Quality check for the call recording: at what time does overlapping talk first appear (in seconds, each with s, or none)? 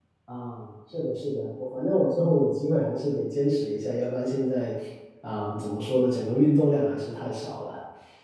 none